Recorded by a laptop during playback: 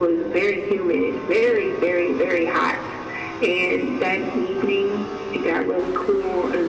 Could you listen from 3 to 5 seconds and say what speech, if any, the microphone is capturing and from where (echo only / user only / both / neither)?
echo only